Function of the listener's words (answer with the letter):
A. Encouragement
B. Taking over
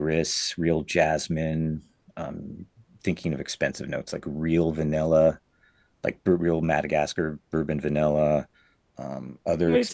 B